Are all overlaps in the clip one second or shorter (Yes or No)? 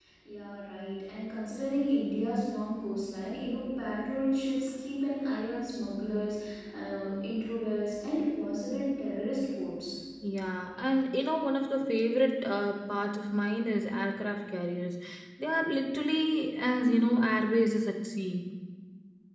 Yes